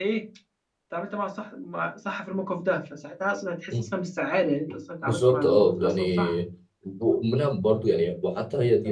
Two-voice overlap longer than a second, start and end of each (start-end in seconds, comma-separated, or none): 5.0-6.3